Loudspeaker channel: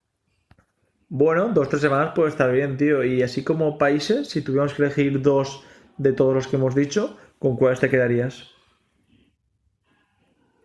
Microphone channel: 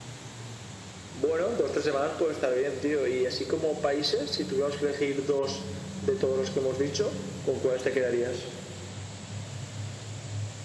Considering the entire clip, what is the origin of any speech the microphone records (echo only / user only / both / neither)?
echo only